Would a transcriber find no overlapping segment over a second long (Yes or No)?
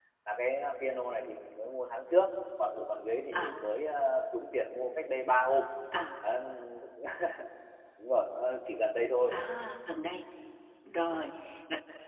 Yes